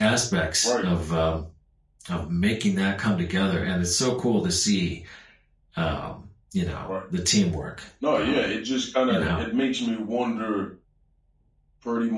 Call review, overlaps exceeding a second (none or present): none